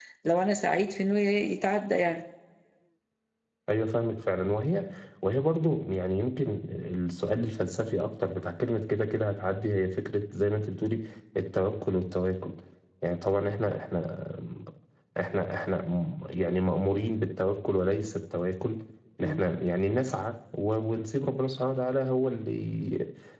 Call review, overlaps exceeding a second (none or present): none